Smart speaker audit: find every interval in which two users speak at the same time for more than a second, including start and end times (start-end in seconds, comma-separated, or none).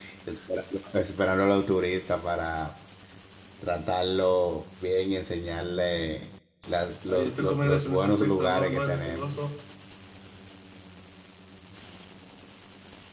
7.1-9.4